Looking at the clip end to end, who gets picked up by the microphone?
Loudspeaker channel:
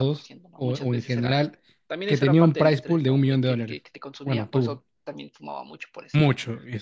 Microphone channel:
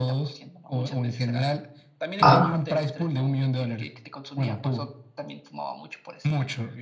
both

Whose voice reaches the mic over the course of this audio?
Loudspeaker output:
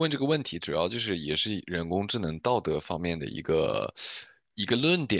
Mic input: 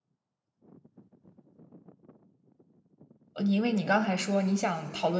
user only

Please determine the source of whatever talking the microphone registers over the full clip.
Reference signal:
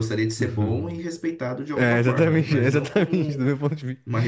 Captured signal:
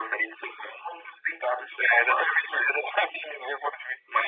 echo only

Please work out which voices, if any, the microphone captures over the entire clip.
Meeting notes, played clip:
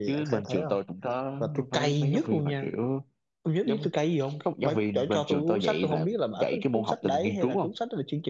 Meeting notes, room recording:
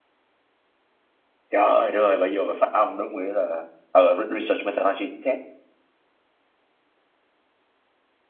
user only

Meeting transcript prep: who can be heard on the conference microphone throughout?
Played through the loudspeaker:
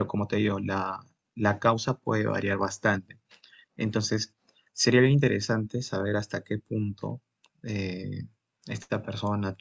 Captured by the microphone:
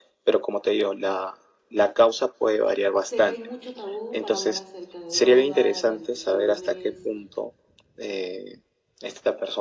both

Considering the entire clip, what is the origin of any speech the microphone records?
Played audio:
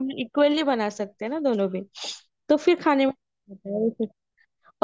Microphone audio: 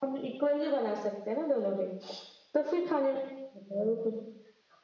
echo only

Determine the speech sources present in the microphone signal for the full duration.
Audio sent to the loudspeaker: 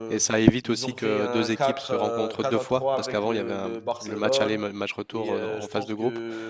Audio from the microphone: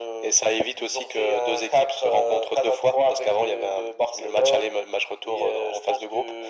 echo only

